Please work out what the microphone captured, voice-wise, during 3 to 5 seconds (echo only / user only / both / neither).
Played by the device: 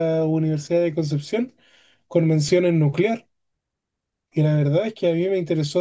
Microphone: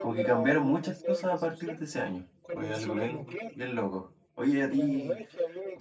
both